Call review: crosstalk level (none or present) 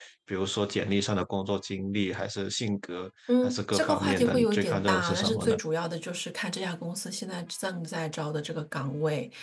present